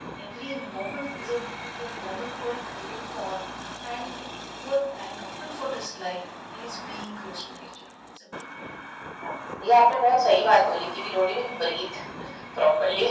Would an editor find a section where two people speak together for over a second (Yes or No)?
No